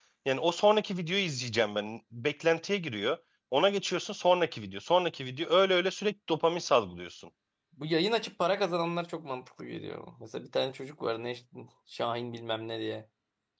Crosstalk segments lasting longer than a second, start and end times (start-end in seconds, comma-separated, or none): none